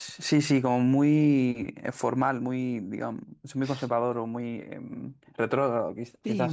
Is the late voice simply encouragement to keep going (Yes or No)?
No